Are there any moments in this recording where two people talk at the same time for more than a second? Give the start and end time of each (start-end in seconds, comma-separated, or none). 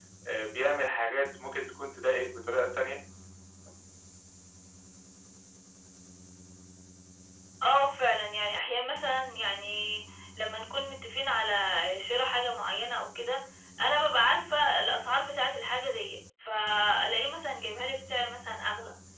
none